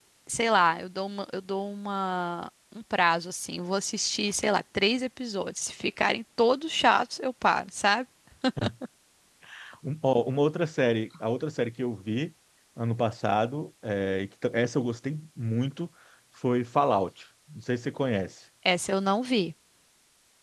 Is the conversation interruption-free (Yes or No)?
Yes